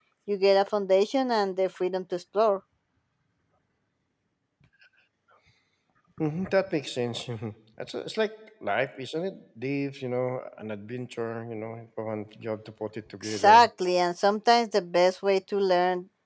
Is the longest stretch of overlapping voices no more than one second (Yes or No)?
Yes